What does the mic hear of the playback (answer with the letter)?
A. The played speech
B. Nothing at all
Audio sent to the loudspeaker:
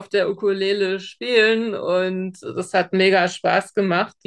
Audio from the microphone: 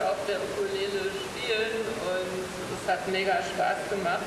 A